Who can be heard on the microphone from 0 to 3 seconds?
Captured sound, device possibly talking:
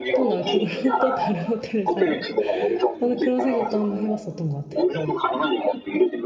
both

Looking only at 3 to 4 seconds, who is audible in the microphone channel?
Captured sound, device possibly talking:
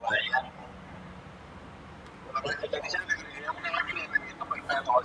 echo only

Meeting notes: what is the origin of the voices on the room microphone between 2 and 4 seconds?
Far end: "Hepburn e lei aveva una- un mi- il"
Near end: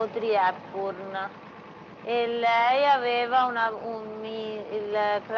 echo only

